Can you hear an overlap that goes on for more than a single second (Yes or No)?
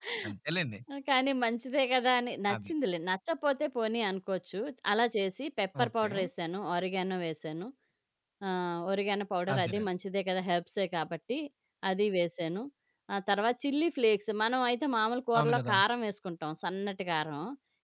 No